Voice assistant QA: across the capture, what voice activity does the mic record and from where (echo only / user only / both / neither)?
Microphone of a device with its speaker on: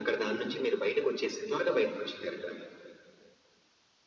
echo only